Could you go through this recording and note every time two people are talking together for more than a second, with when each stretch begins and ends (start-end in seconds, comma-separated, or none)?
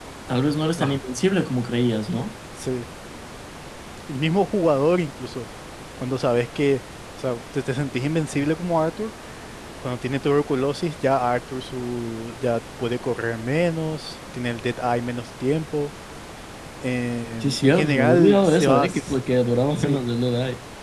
17.4-19.2